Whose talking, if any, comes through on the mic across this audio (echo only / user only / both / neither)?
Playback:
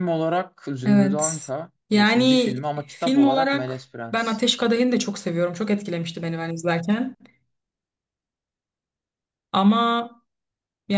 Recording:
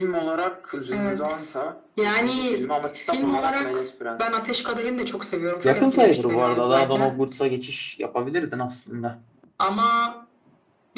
both